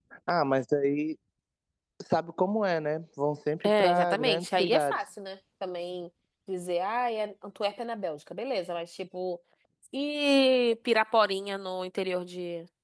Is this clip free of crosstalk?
No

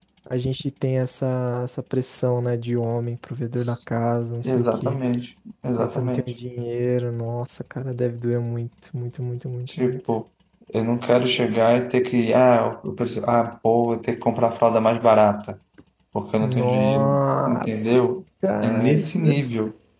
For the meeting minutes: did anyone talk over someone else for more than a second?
Yes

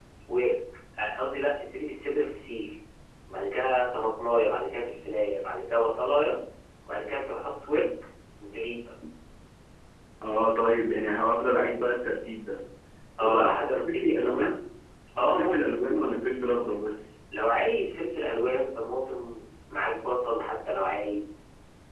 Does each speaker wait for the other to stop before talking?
No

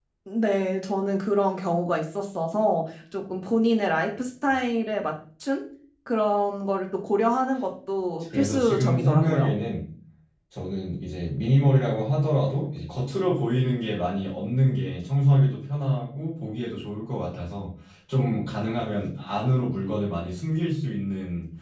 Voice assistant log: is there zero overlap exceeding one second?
No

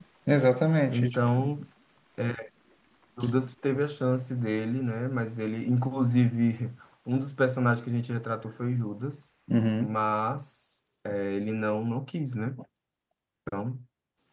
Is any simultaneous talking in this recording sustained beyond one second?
No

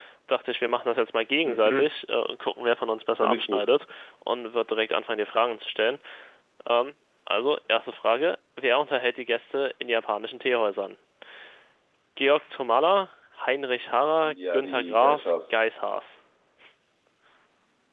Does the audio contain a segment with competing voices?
Yes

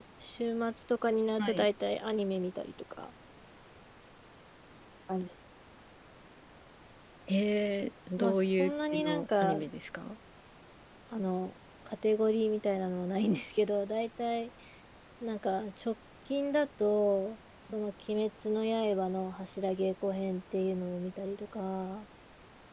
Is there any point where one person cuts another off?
Yes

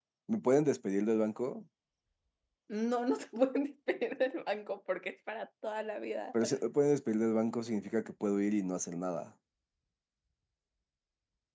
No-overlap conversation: Yes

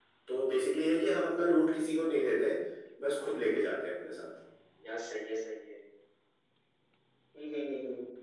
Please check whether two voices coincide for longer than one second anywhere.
No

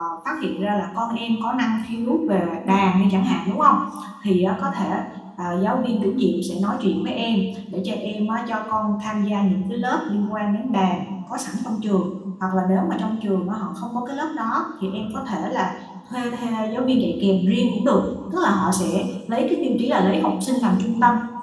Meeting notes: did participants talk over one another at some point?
No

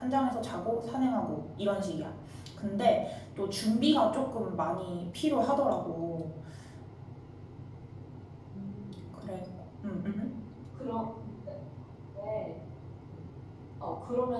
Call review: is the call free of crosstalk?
Yes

